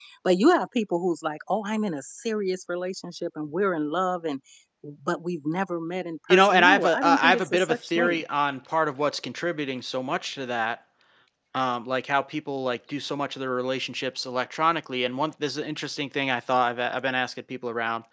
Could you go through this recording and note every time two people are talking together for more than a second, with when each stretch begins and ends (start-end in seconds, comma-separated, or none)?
6.3-8.2